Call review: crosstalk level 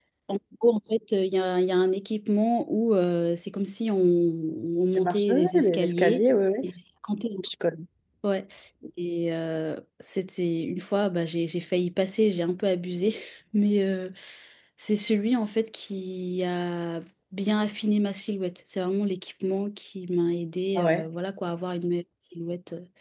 present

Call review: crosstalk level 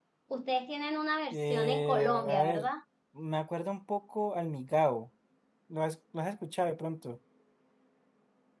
present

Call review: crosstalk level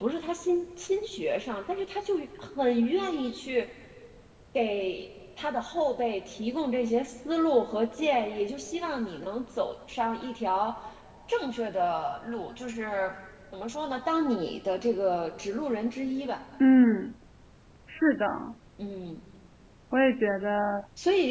none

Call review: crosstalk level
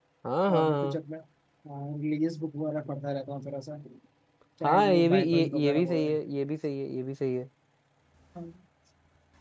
present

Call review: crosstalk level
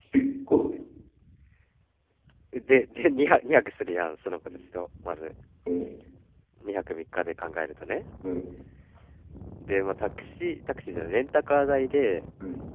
none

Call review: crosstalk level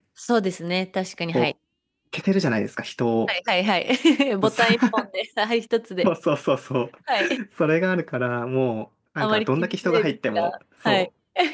present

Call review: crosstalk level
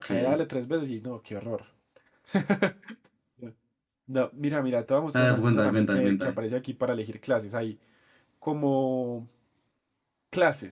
present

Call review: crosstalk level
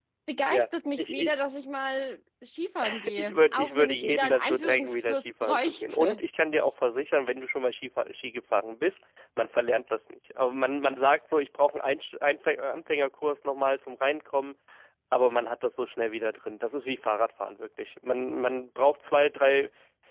present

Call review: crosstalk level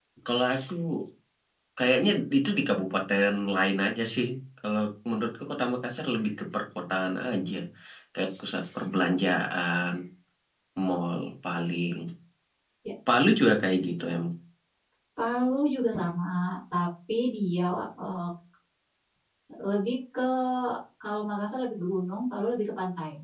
none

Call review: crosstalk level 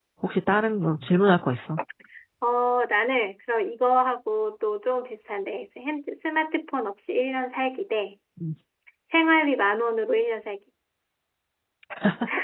none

